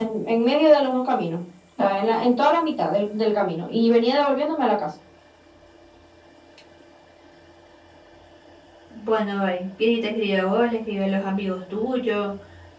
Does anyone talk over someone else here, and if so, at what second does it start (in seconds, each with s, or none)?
none